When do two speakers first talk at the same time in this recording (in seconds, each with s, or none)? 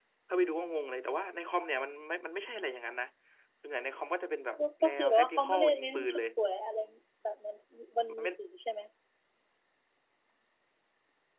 4.6 s